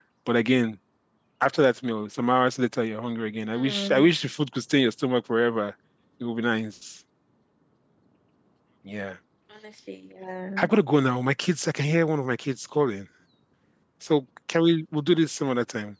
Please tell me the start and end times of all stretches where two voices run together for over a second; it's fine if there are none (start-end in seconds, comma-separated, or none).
none